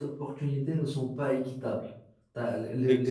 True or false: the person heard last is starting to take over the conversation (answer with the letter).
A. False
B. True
A